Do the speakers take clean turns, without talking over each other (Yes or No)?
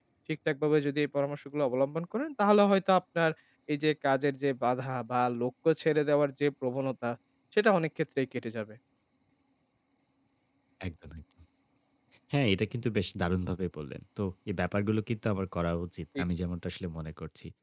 Yes